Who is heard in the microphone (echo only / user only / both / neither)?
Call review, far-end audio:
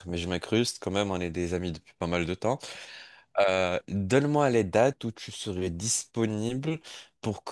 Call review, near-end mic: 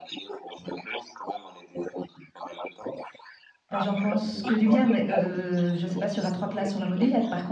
both